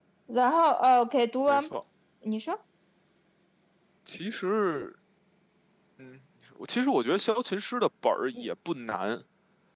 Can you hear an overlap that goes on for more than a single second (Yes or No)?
No